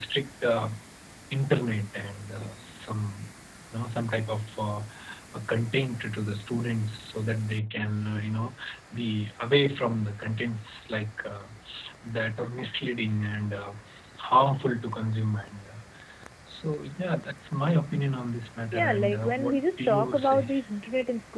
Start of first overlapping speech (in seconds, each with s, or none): 18.7 s